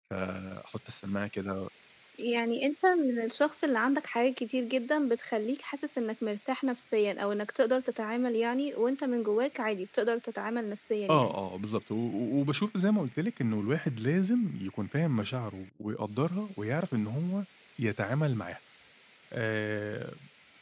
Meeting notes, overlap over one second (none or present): none